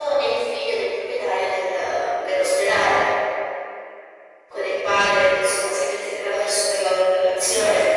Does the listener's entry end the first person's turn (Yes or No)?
No